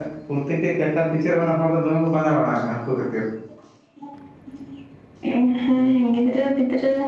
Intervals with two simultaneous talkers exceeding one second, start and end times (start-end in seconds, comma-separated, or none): none